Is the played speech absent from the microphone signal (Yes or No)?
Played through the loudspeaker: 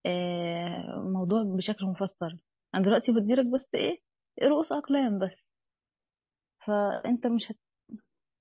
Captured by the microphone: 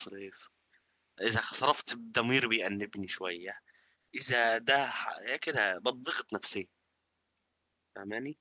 Yes